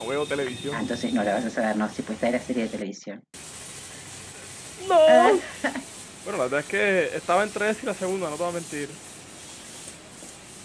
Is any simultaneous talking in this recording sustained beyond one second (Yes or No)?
No